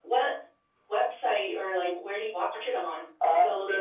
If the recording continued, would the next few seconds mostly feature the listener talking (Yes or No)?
Yes